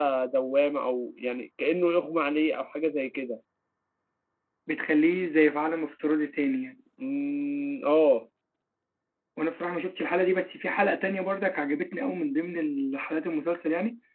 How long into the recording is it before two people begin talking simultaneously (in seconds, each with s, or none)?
none